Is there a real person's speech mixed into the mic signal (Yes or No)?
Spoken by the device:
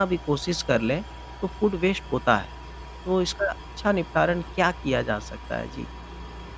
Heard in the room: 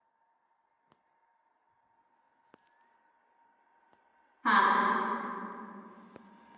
Yes